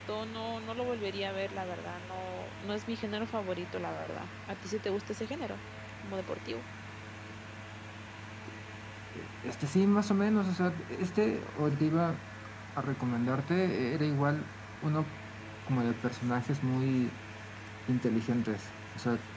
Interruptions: none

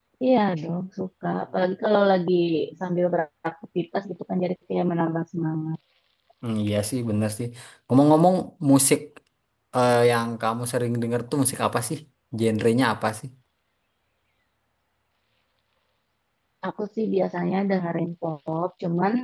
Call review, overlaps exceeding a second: none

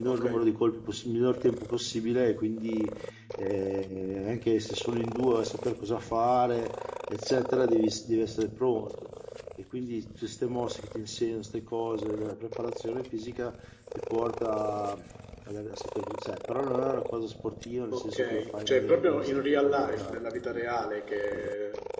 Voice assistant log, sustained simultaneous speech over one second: present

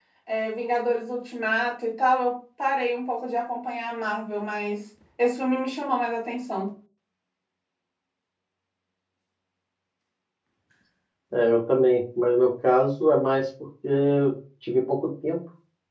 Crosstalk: none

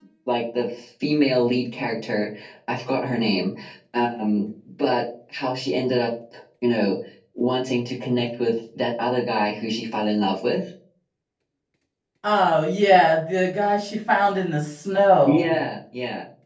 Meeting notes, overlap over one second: none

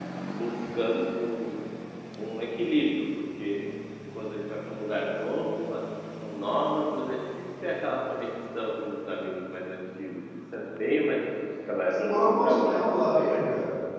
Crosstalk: present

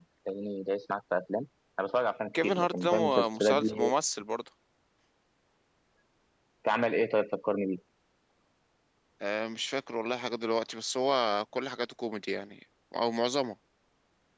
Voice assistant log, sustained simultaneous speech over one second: present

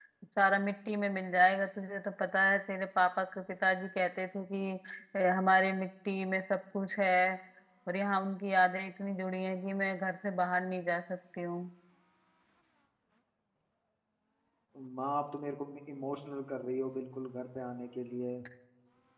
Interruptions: none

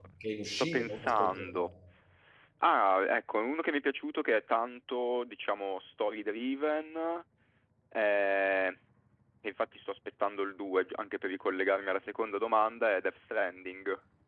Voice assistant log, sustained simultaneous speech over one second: present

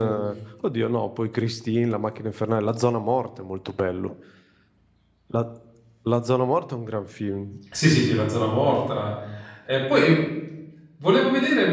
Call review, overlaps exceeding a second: none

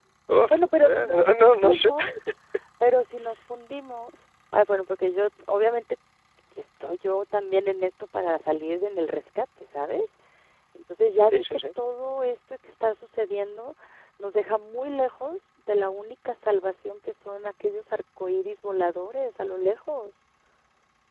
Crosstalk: present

